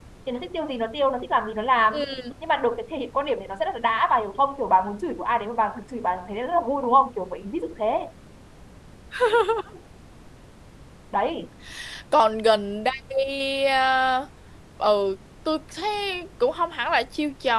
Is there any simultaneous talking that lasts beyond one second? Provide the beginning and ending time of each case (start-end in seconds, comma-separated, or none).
none